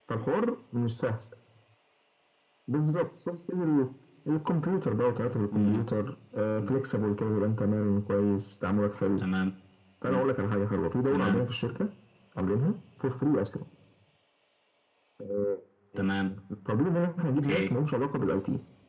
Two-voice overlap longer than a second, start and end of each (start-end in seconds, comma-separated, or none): none